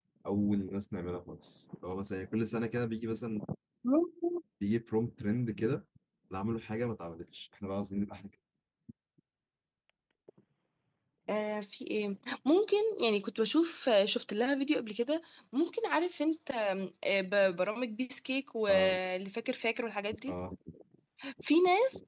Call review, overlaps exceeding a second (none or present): none